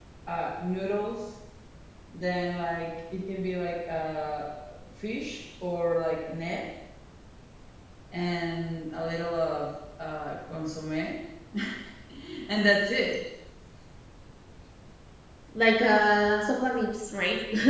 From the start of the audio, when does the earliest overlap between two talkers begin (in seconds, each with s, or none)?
none